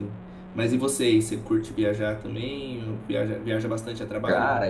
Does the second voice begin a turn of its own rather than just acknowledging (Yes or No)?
Yes